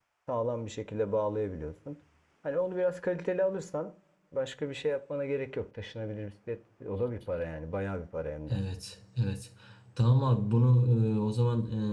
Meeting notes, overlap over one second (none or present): none